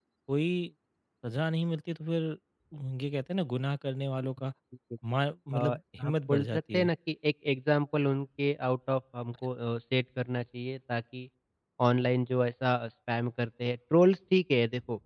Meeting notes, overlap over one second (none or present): present